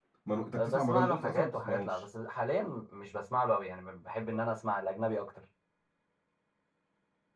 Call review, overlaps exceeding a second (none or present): present